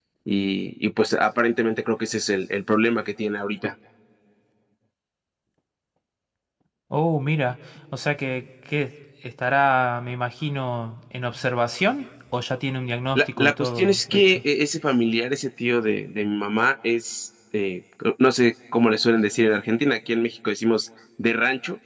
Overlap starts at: 13.2 s

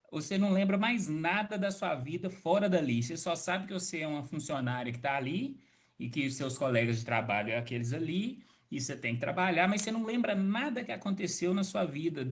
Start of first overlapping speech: none

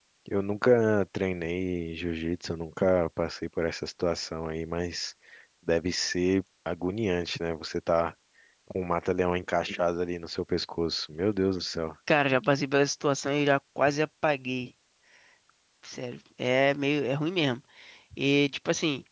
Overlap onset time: none

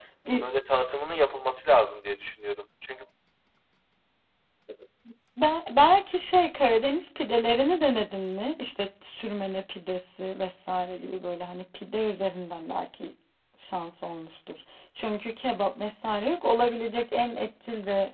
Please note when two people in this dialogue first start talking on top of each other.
none

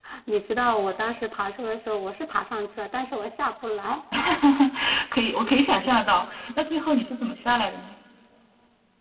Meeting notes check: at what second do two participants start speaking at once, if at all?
none

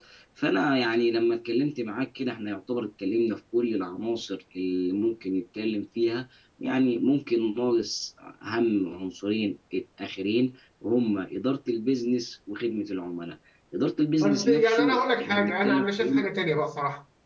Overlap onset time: 14.2 s

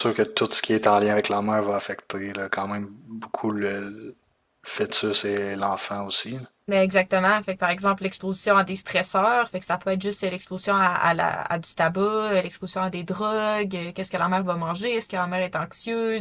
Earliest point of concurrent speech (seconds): none

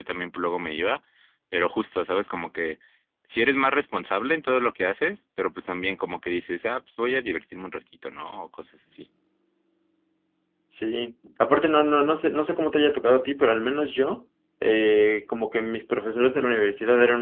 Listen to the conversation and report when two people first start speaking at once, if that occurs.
none

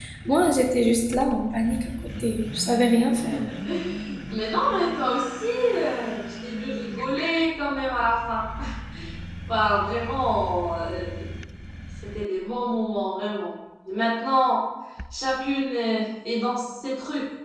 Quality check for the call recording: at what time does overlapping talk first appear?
none

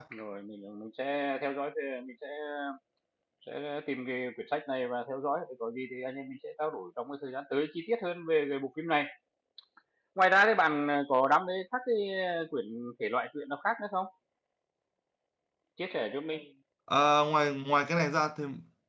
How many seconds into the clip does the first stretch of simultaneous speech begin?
none

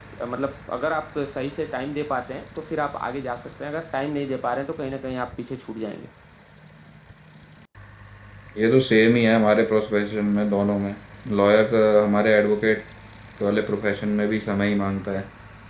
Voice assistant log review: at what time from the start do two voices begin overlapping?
none

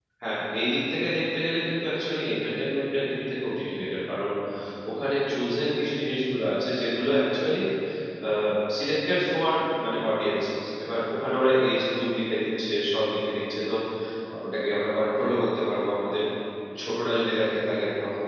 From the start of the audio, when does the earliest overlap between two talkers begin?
none

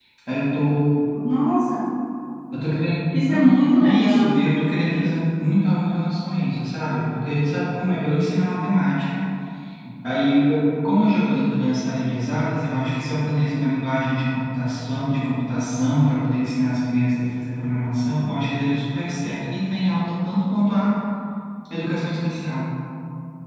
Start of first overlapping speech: 3.1 s

